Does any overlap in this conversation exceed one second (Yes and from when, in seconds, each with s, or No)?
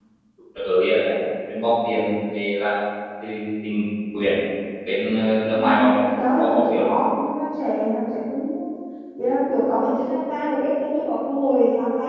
Yes, from 5.5 s